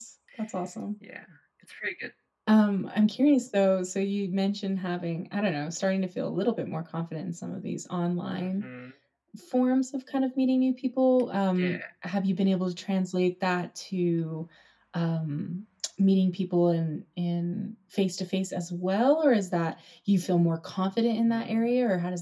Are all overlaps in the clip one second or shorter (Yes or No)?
Yes